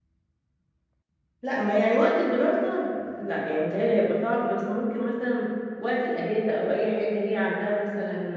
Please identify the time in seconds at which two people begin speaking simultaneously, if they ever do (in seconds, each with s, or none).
none